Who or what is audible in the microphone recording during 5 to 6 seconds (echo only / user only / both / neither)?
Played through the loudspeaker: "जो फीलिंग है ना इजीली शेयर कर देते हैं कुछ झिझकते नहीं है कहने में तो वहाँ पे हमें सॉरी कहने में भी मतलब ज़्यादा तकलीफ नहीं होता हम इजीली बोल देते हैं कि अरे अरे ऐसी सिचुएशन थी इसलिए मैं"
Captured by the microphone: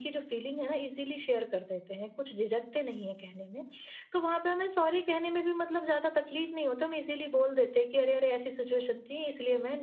echo only